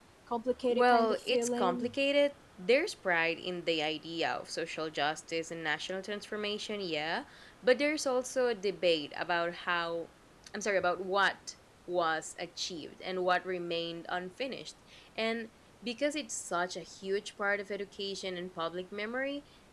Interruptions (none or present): present